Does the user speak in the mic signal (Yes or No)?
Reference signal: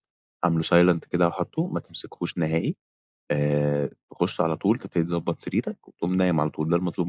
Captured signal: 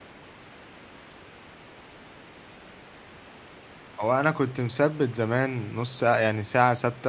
Yes